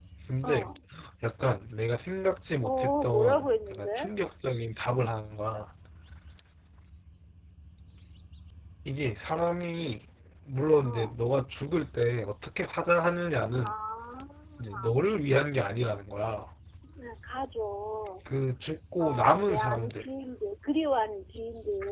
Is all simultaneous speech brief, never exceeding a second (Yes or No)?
No